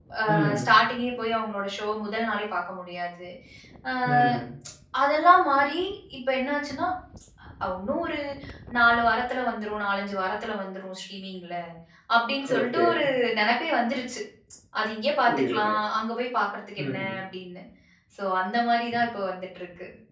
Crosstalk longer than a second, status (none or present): none